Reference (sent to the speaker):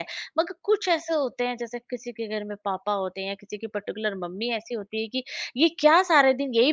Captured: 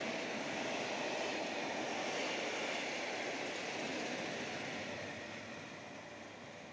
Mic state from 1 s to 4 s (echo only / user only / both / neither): neither